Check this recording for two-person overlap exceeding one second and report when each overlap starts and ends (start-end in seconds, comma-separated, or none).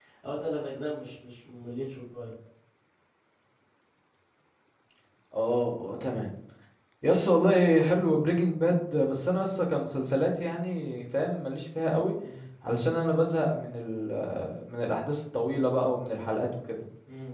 none